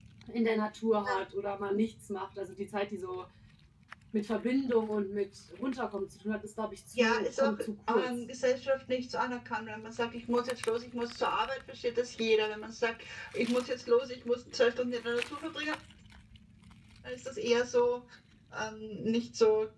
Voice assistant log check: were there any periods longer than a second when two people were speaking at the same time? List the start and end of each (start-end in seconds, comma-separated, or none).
6.9-8.2